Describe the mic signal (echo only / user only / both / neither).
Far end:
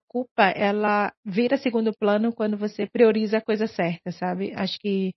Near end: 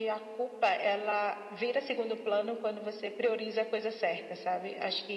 echo only